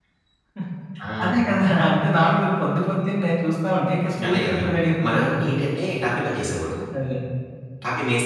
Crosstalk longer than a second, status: none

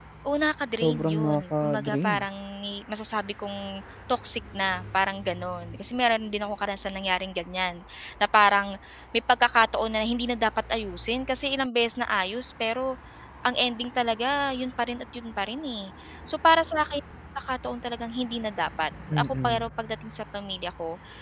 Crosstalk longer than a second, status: present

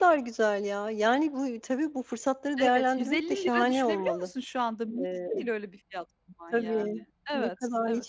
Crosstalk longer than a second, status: present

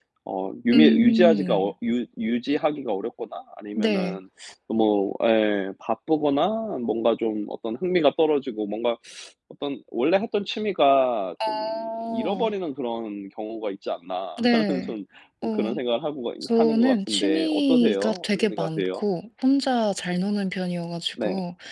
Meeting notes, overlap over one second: present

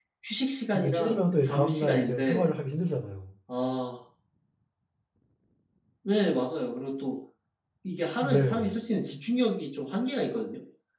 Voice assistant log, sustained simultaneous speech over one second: present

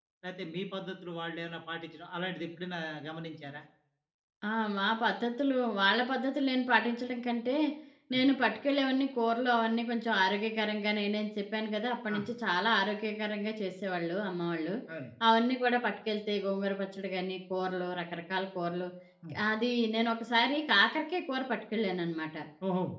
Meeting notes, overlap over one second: none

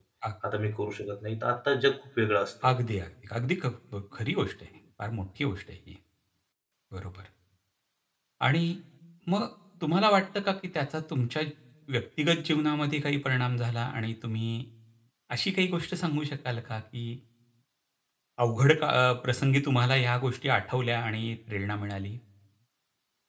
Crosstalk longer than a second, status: none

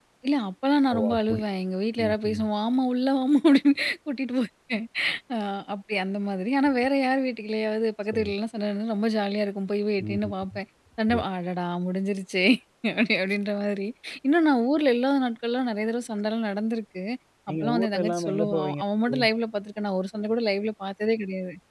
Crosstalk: present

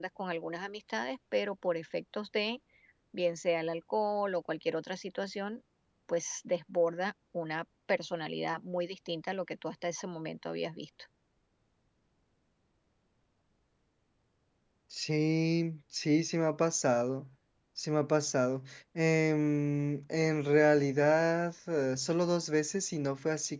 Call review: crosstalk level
none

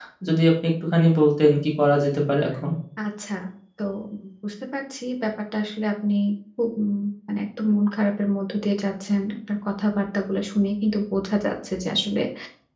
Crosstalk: none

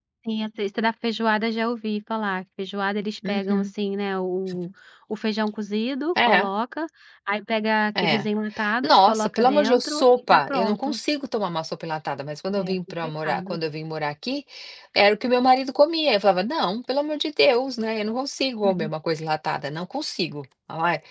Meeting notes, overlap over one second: present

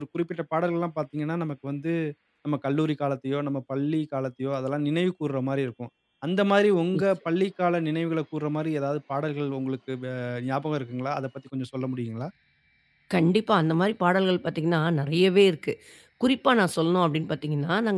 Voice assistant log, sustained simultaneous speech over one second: none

